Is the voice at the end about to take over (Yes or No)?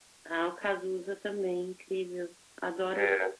Yes